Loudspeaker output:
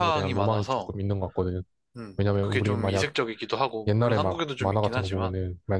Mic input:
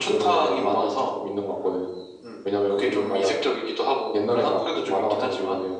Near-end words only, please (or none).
none